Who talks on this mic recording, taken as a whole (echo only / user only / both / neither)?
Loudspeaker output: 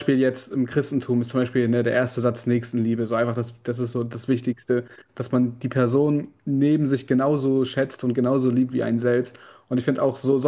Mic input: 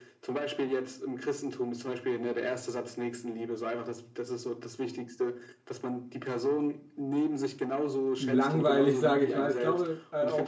both